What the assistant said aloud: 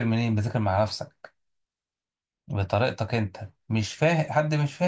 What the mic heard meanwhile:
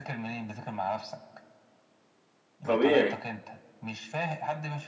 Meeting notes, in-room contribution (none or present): present